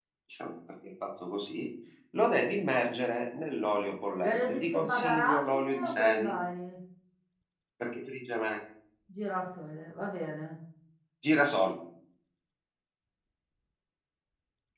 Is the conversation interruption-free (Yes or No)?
No